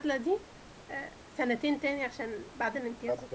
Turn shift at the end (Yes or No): Yes